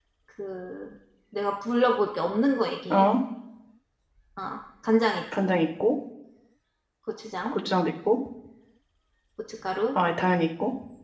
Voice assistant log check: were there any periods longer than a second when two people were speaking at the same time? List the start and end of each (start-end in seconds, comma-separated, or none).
none